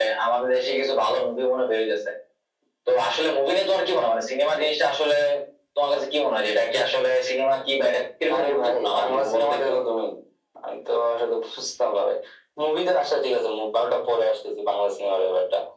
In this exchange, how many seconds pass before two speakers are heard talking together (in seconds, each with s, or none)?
8.3 s